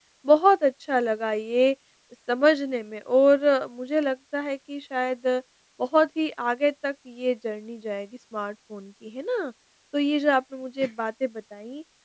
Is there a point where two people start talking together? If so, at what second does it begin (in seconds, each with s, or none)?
none